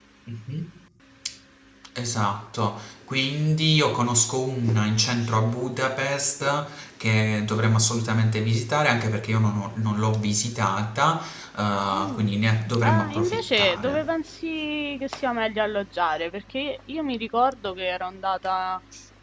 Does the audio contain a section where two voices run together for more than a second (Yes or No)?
Yes